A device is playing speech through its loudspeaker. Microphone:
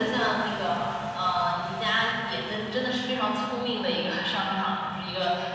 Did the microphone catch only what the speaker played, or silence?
Yes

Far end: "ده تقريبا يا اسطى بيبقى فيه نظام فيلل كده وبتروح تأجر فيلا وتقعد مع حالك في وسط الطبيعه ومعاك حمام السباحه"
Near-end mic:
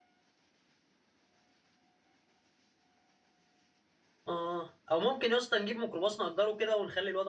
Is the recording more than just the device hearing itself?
Yes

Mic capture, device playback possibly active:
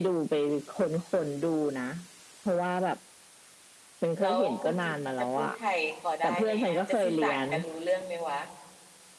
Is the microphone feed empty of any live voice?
No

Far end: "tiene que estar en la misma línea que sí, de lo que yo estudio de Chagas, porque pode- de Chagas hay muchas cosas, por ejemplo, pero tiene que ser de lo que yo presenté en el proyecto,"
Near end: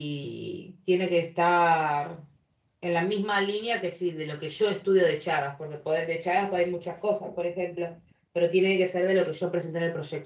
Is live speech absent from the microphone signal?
Yes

